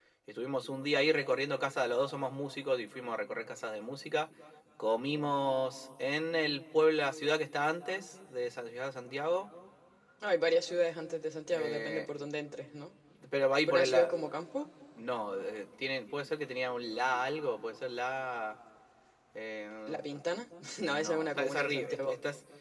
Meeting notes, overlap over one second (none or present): present